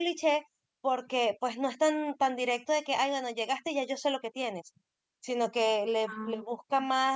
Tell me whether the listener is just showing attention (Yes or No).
Yes